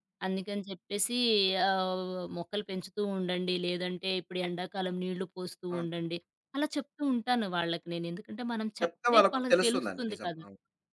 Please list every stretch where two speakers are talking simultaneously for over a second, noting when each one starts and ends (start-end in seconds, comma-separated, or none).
8.8-10.3